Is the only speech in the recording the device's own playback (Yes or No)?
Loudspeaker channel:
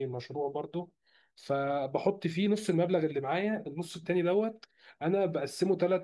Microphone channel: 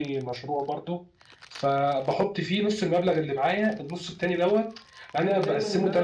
No